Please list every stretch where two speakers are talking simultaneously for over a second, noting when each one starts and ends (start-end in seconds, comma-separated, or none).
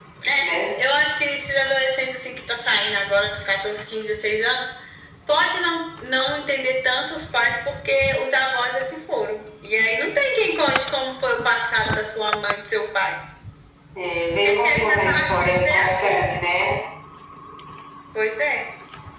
14.4-16.1